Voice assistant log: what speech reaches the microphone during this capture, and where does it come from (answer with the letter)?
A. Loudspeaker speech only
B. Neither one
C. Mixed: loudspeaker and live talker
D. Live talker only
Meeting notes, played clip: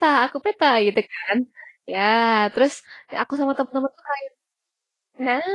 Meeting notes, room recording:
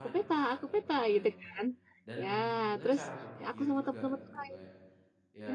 C